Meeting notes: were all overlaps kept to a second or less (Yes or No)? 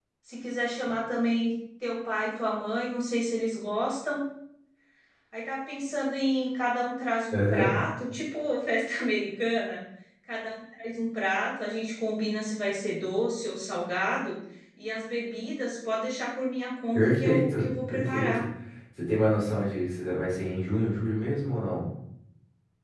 No